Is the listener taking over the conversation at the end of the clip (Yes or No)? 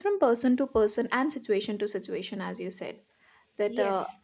No